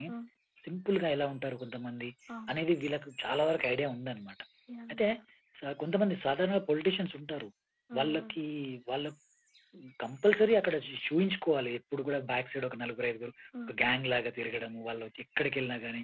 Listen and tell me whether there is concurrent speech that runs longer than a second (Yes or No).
No